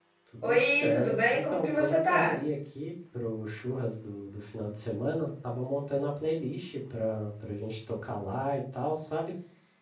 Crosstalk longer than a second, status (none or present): present